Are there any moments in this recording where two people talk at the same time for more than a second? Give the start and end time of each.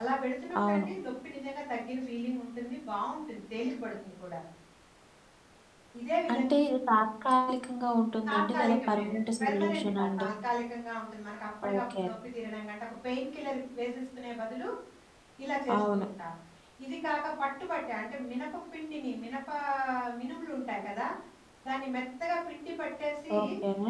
8.3-10.3

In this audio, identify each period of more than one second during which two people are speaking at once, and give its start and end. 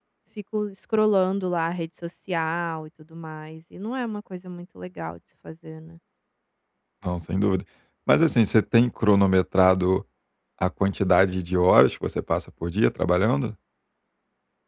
none

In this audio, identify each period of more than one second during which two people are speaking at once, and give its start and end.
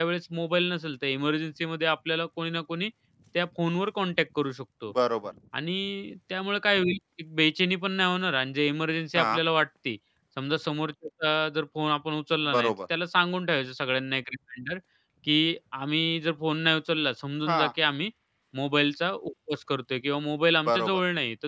none

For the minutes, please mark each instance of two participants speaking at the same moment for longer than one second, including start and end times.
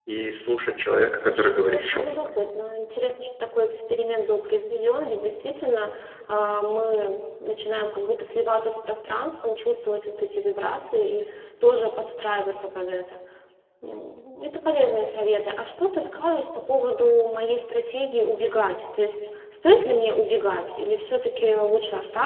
1.0-2.3

